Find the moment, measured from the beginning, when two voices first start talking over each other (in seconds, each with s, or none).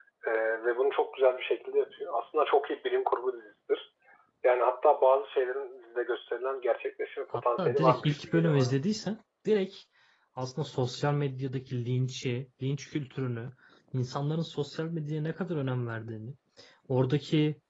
7.3 s